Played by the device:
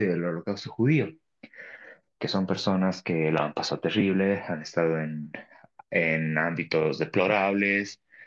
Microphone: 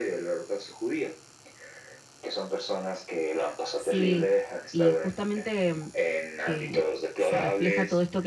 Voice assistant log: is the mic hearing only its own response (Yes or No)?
No